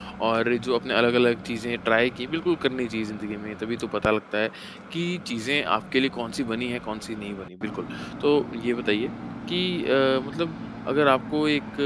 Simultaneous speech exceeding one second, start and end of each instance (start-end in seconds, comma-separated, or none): none